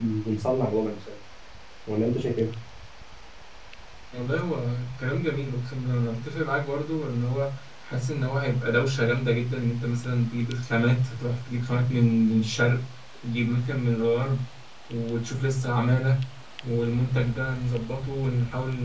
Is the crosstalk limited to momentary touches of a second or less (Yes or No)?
Yes